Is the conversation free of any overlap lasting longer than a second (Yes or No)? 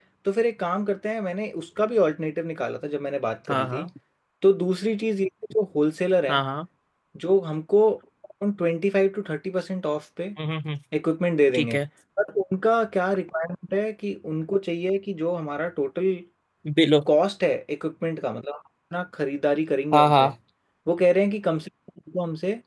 Yes